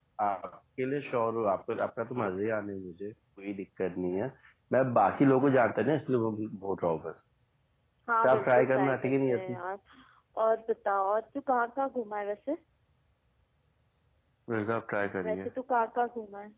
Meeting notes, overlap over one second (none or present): present